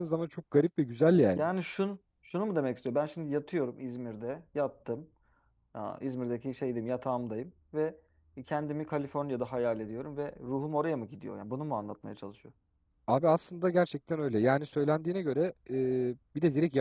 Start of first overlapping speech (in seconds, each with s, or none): none